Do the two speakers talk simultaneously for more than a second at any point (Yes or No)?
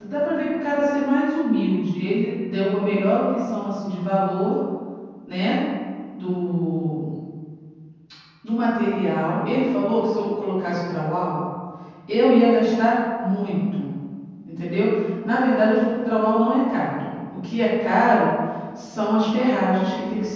No